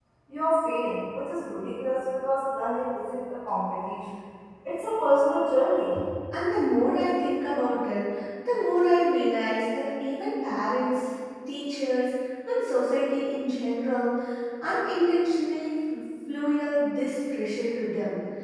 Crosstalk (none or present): none